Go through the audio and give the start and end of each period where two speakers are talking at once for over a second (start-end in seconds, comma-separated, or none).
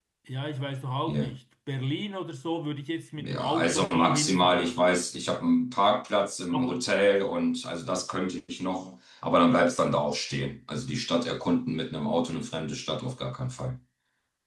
3.2-4.7